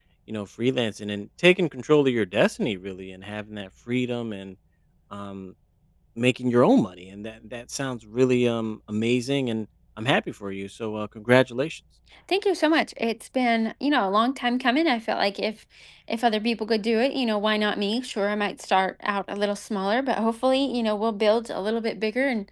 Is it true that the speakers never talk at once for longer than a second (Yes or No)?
Yes